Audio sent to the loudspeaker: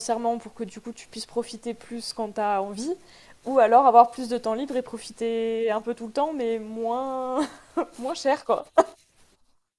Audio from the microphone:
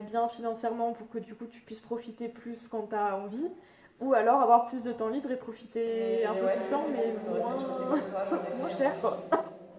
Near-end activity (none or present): present